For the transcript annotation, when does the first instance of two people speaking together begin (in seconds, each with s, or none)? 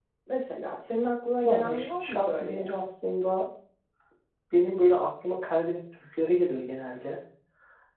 1.4 s